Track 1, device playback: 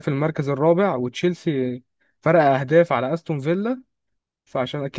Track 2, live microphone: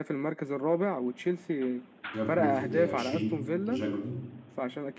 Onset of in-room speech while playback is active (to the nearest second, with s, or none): 2 s